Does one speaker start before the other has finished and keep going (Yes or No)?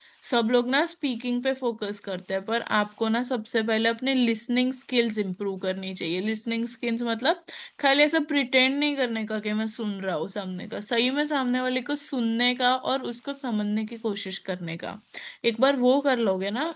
No